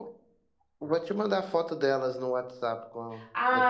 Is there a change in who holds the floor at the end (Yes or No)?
Yes